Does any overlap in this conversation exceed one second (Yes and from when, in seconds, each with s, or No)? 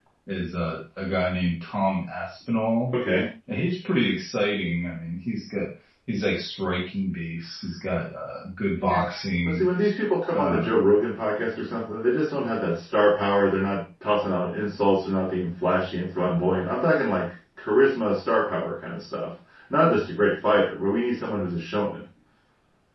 No